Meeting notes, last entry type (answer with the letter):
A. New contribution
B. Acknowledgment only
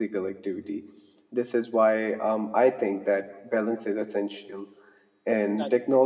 B